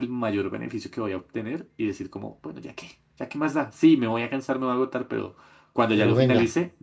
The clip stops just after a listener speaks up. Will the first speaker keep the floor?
Yes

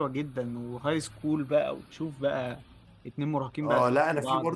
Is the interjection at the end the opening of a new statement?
Yes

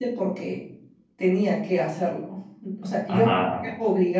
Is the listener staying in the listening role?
Yes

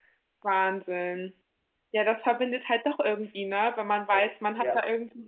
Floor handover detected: No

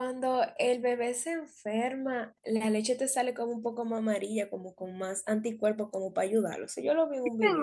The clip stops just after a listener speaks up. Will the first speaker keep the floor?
No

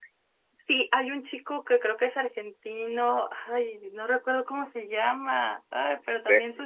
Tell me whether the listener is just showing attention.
Yes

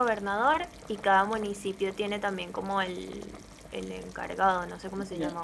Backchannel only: No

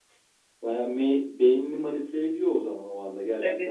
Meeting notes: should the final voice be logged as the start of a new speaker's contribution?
Yes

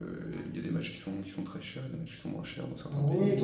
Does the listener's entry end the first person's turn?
Yes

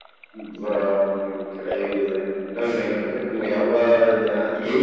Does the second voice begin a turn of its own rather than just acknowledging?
Yes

